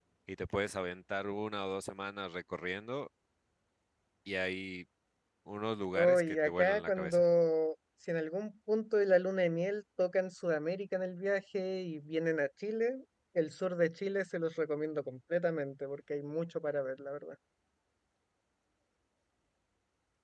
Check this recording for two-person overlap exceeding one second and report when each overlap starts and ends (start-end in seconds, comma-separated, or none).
6.0-7.2